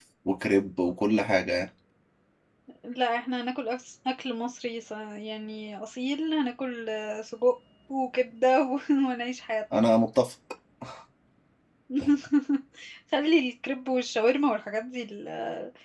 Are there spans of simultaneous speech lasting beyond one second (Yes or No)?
No